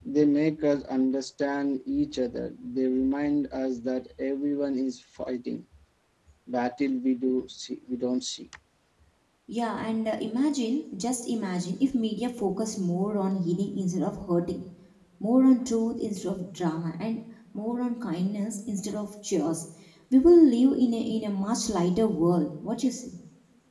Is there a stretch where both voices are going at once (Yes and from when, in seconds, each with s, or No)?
No